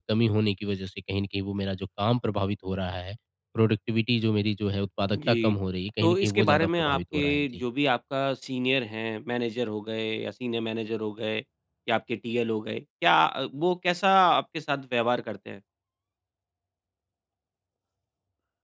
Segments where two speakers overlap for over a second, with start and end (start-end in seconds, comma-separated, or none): 6.0-7.6